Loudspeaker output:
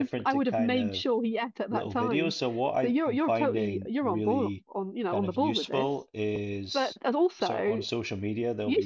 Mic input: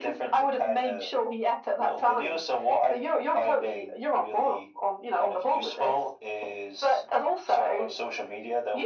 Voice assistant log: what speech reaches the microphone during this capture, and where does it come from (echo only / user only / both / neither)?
echo only